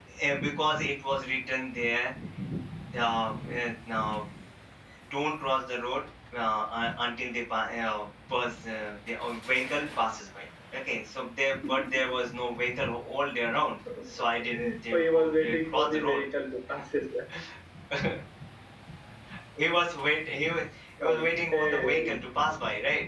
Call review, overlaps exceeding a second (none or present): present